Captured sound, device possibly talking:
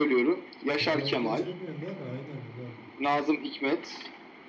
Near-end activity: present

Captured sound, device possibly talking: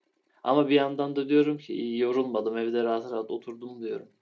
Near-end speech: present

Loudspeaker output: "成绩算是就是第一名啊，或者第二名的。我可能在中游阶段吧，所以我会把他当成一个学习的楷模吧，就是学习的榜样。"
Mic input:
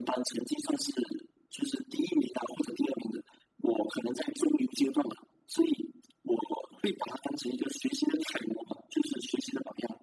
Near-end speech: none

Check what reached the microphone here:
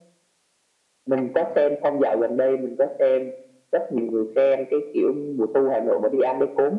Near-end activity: none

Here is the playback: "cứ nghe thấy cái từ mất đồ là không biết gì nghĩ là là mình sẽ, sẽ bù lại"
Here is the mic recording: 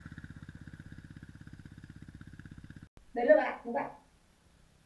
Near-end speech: present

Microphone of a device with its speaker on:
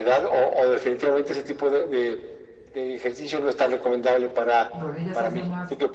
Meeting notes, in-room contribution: present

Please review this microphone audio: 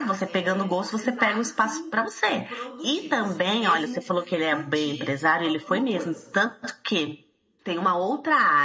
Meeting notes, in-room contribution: present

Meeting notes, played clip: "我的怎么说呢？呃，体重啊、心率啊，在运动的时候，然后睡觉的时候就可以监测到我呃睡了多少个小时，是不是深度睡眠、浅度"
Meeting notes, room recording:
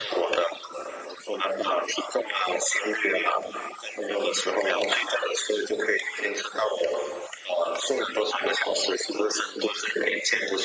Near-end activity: none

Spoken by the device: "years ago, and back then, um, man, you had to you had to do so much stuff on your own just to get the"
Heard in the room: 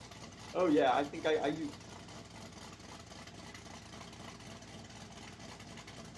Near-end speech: present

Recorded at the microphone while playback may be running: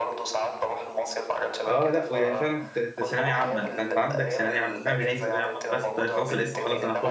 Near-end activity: present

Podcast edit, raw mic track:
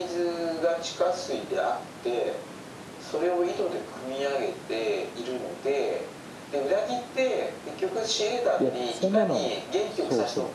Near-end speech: present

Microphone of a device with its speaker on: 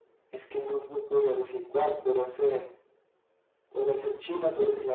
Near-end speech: none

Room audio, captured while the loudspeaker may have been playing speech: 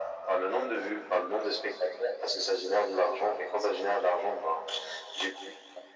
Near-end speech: none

